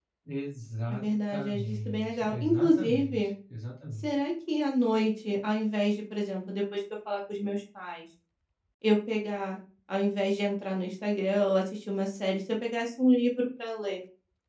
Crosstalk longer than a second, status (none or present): present